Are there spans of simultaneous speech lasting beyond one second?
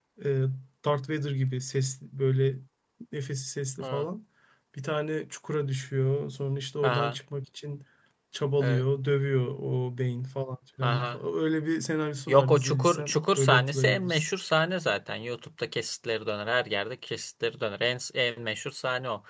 Yes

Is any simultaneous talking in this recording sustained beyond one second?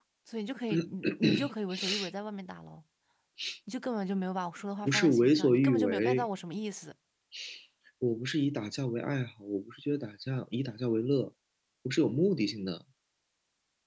Yes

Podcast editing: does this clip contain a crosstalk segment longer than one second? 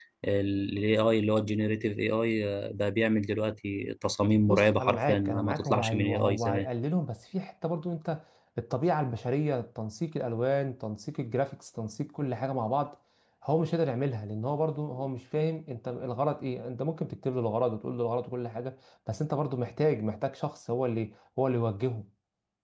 Yes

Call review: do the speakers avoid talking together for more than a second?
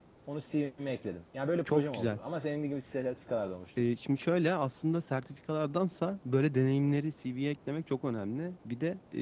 Yes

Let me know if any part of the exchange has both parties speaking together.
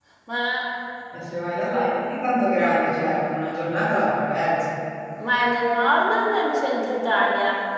No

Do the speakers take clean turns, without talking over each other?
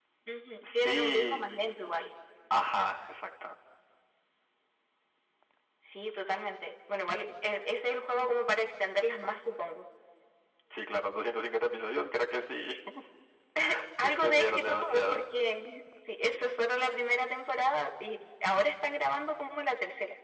No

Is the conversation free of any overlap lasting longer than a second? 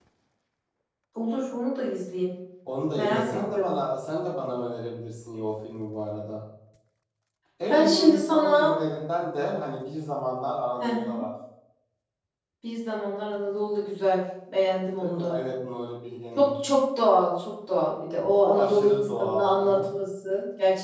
No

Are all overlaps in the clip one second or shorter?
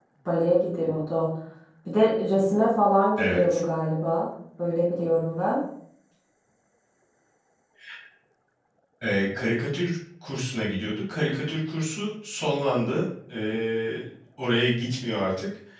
Yes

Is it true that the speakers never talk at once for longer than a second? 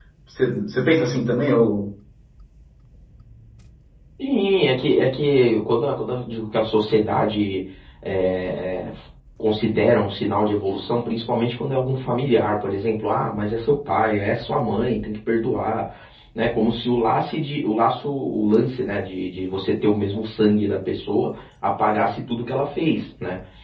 Yes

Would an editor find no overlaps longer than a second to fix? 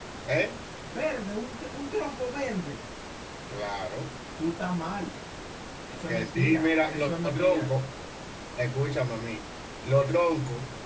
No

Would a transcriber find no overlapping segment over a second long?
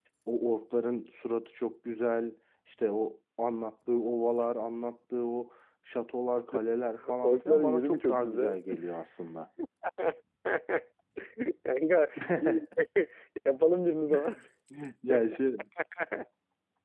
No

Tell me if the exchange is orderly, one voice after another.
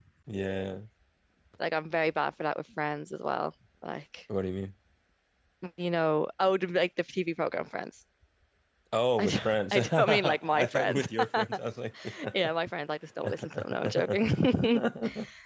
No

